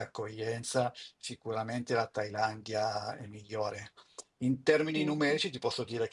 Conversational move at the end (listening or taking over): listening